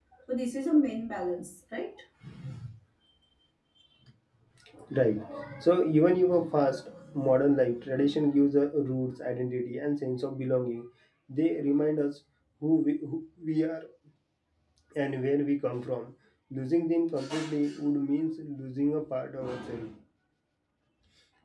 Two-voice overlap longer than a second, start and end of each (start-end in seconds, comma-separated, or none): none